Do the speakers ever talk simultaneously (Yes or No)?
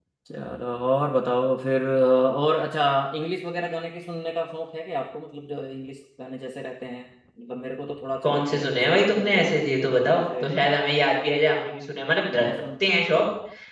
Yes